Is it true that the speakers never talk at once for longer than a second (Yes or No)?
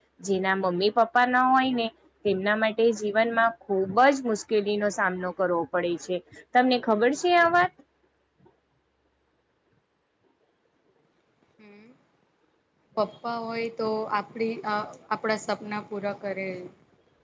Yes